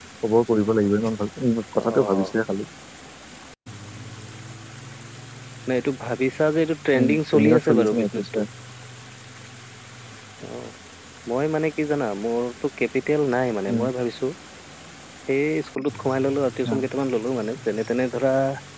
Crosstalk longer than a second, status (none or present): present